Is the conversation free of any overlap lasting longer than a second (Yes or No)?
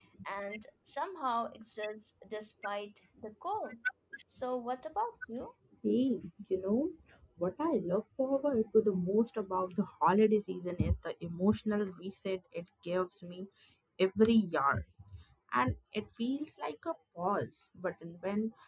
Yes